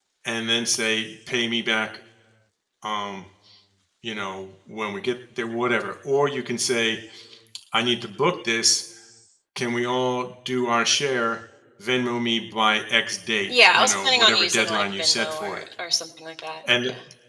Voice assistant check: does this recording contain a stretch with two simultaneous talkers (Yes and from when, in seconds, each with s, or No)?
Yes, from 13.5 s